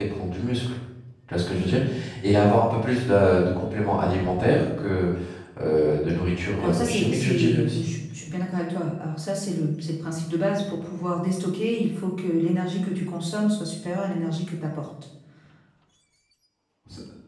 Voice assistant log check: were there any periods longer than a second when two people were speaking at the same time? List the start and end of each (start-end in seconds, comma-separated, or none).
6.6-7.9